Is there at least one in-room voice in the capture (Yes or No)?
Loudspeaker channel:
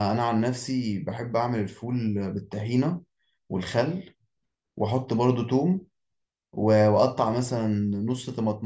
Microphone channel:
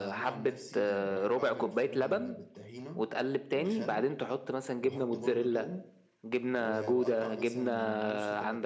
Yes